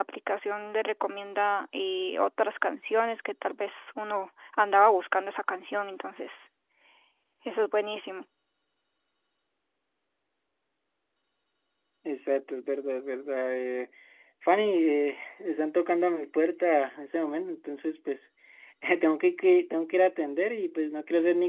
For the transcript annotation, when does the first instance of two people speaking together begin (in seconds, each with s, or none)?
none